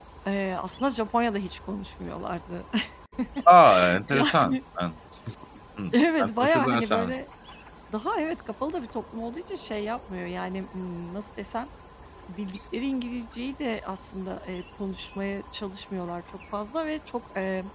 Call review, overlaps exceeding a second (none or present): present